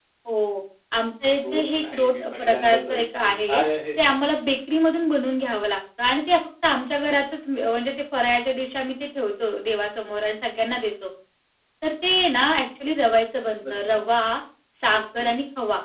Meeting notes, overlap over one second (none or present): present